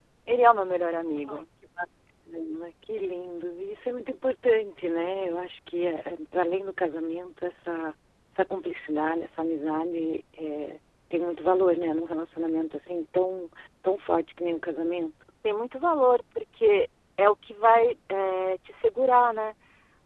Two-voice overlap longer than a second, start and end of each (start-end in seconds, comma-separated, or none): none